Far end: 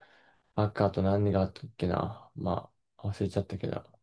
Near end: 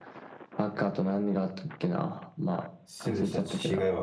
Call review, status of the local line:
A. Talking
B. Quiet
A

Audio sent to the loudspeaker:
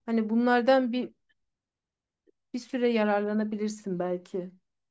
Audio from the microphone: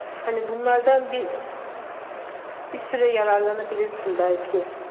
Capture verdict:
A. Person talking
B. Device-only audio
B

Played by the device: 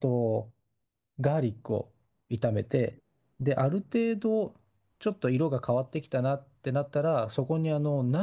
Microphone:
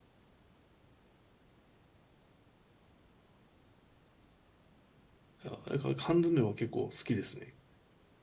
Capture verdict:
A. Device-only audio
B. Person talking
B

